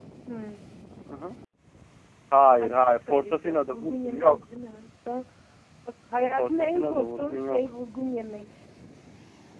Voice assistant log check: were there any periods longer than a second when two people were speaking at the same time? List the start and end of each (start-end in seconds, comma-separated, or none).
2.6-4.4, 6.4-7.6